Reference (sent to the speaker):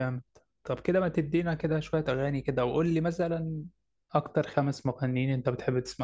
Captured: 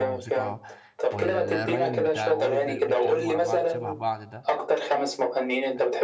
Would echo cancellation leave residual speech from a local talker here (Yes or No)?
Yes